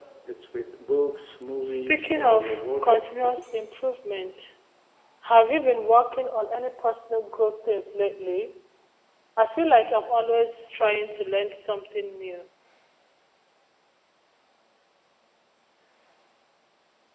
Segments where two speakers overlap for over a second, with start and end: 1.6-3.2

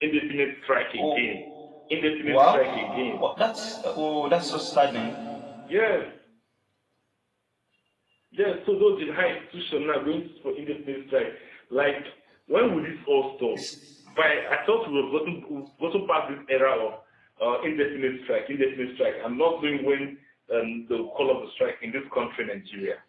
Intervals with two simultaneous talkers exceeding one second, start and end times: none

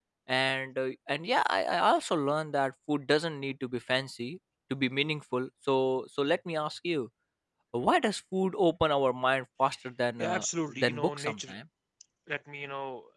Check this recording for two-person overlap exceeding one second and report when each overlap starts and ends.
10.2-11.6

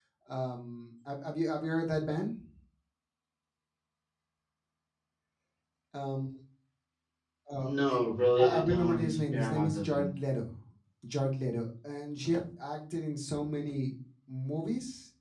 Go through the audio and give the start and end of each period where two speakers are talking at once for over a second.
8.4-10.0

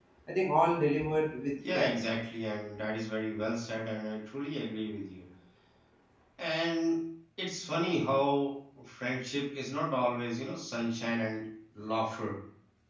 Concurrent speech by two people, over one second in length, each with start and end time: none

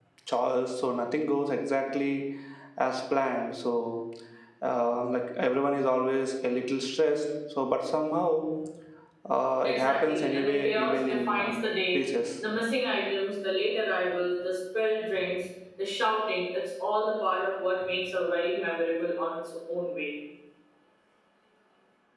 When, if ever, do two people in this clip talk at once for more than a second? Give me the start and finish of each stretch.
9.6-11.5

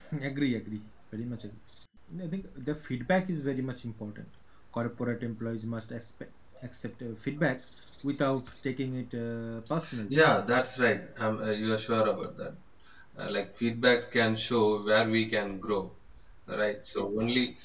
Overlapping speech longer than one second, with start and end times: none

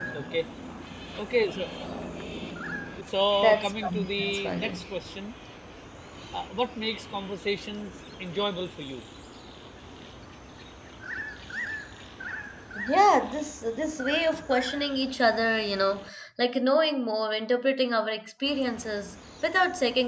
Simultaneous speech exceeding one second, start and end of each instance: 3.4-4.8

